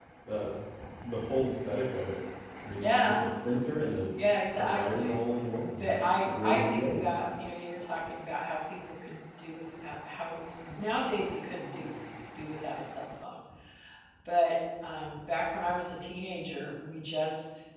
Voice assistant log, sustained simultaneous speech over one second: present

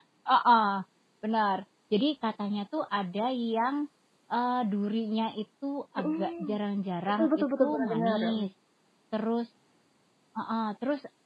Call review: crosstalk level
present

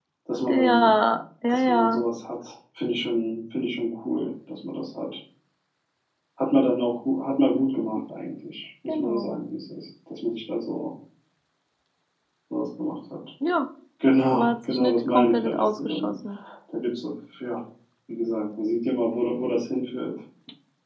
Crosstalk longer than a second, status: present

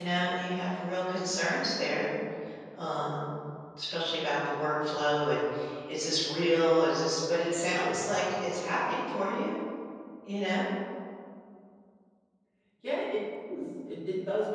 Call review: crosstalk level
none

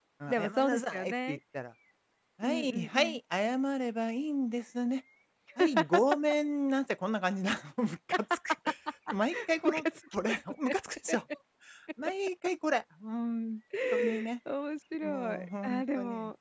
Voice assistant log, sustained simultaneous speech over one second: present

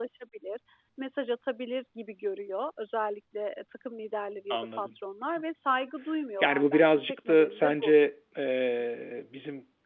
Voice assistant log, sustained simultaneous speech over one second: present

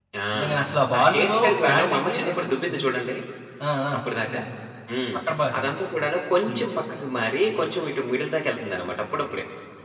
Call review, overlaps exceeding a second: present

